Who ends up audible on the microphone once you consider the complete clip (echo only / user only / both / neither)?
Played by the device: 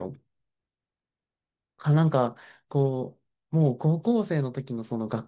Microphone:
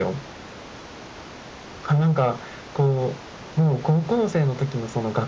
echo only